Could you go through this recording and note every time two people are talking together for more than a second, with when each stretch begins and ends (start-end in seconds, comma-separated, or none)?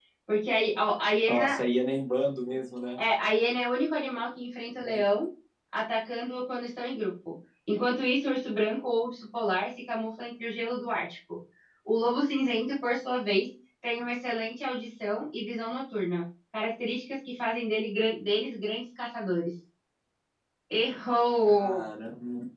none